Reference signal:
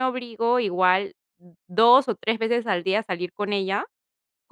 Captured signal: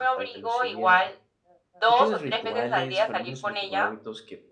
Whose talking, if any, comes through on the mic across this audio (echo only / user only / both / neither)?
both